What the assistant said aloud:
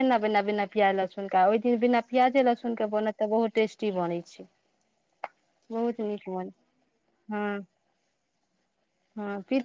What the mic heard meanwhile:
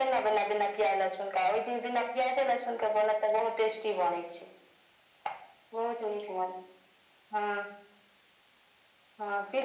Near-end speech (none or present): none